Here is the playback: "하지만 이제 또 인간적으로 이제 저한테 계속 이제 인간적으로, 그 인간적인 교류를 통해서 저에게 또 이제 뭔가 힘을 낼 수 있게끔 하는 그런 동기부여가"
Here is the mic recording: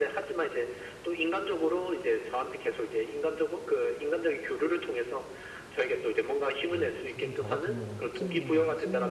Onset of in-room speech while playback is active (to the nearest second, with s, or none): 7 s